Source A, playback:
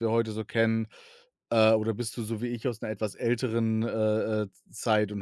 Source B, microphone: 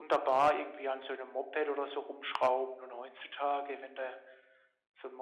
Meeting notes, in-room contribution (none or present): present